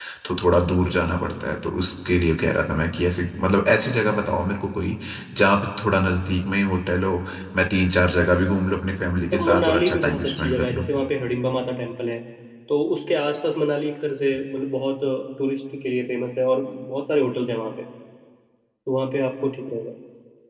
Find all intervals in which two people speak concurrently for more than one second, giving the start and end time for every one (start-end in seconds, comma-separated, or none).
9.3-10.8